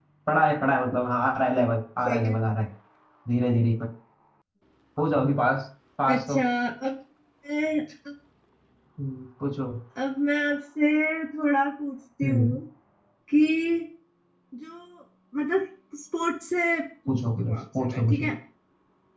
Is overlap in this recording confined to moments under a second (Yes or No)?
No